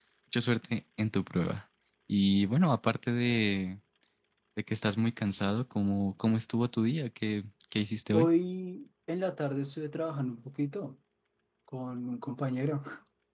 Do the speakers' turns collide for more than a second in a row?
No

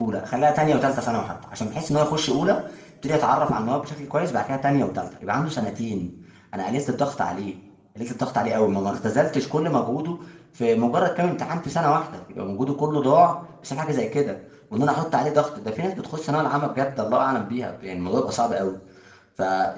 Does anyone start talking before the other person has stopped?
No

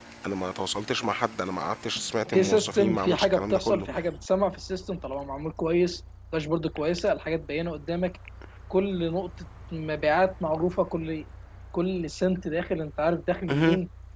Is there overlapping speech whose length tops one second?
Yes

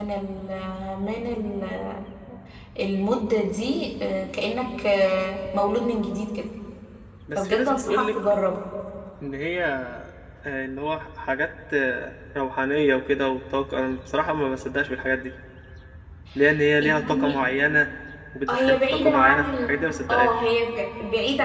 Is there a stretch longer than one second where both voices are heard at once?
Yes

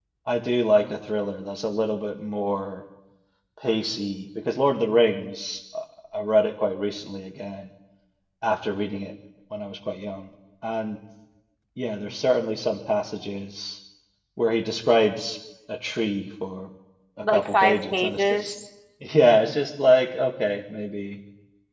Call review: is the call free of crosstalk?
No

